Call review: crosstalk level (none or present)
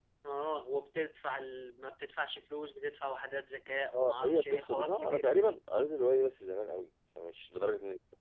present